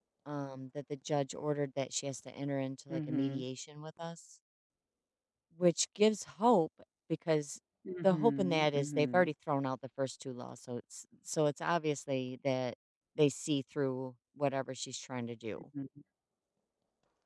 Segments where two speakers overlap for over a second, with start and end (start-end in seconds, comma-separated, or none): 8.0-9.3